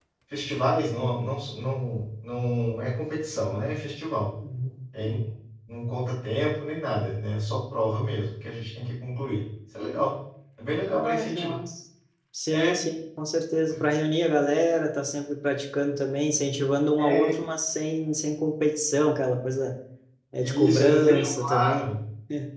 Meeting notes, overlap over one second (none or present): present